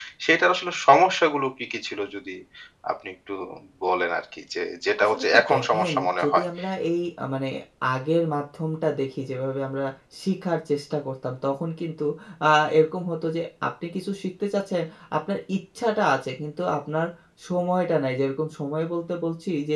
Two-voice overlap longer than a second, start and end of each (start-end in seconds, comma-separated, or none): 5.0-6.5